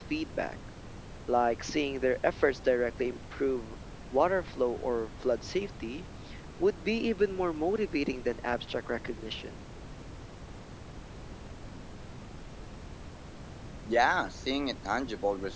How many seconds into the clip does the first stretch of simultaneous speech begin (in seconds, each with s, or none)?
none